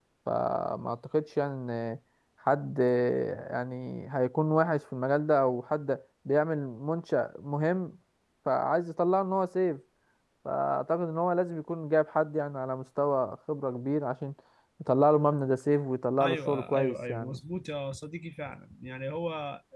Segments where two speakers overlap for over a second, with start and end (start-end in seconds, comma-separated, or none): 16.2-17.4